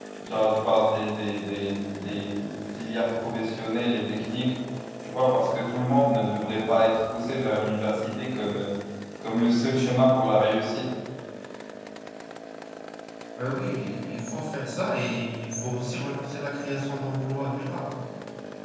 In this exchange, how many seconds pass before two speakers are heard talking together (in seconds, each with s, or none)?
none